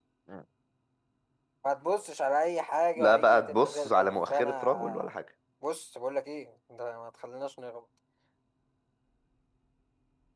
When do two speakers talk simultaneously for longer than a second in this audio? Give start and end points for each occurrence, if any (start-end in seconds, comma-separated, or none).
3.0-5.2